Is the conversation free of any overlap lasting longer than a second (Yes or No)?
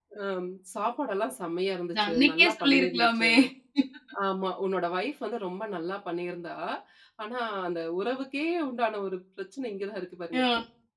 No